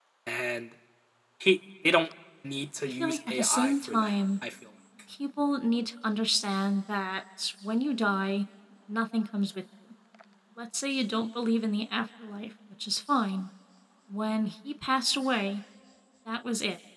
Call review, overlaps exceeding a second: present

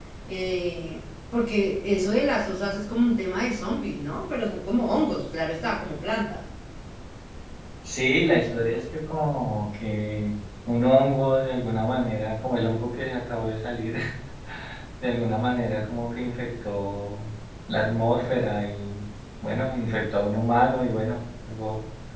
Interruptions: none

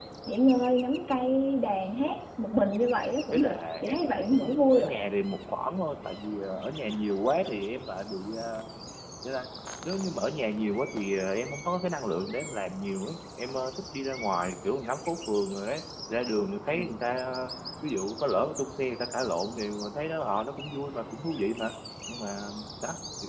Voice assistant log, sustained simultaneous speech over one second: present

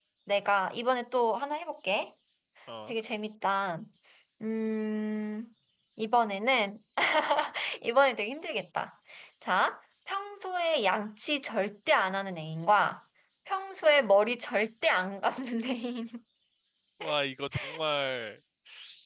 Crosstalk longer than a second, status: none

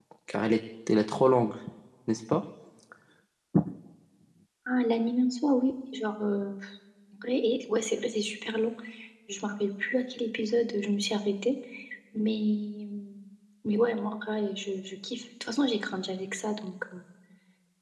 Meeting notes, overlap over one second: none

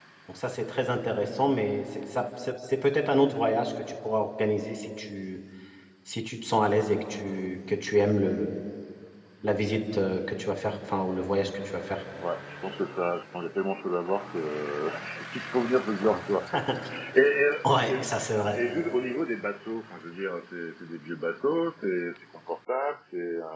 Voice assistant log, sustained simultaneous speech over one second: none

